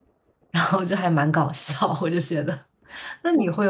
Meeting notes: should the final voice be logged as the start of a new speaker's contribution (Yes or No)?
No